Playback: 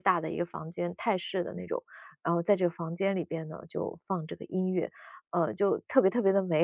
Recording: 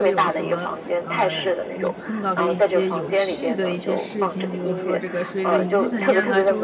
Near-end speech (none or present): present